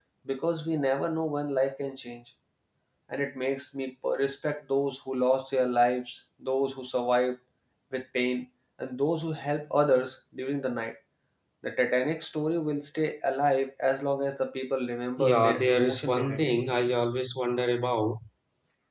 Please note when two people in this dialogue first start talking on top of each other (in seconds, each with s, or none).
15.2 s